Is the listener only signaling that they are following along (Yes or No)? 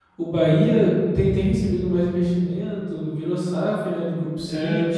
No